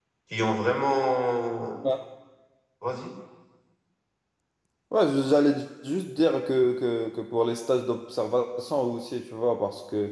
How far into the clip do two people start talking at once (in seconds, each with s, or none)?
none